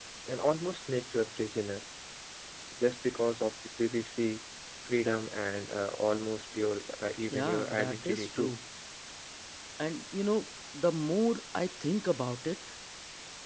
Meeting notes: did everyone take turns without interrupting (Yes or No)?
No